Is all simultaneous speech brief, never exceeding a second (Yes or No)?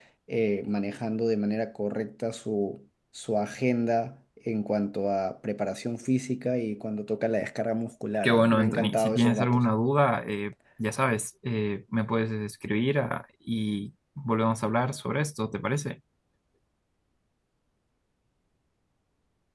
No